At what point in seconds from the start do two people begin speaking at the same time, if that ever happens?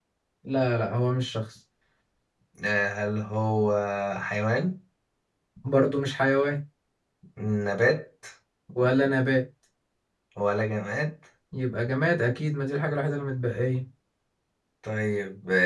none

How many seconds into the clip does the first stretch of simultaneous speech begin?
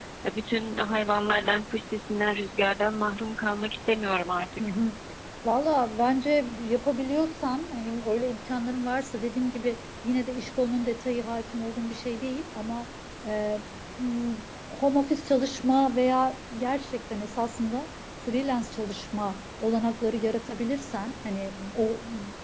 none

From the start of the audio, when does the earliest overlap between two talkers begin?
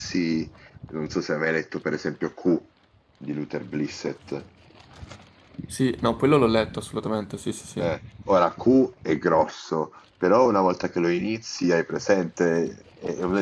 none

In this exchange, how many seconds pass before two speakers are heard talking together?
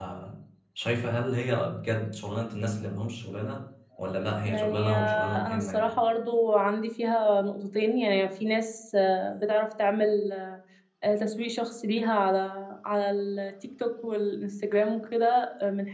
4 s

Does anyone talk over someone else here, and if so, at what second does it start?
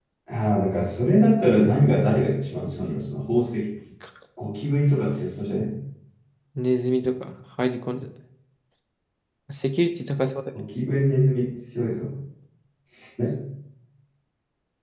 none

